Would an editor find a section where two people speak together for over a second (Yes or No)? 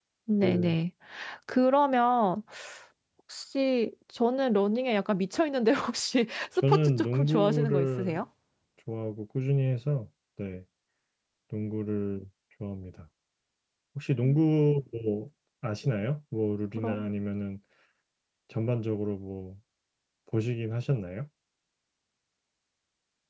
Yes